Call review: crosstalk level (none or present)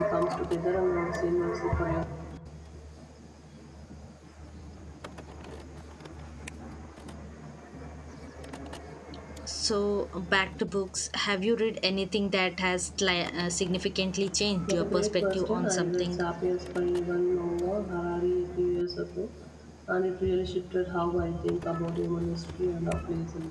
present